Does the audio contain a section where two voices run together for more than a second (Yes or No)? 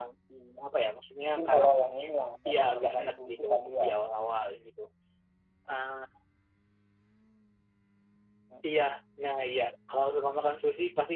Yes